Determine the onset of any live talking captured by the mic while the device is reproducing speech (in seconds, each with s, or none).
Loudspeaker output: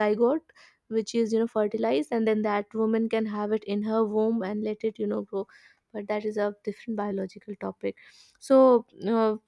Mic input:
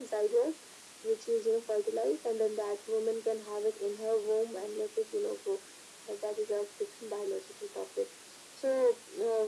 none